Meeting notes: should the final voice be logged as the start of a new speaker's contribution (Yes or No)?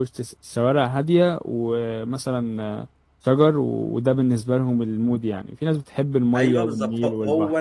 Yes